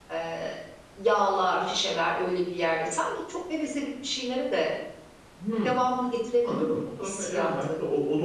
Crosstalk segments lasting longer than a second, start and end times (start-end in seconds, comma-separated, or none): 6.4-7.7